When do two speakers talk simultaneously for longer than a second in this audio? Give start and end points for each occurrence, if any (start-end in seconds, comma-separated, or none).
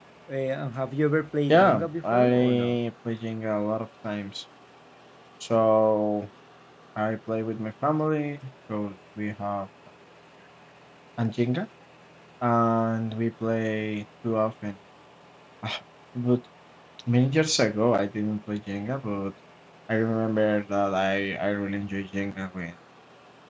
1.5-2.8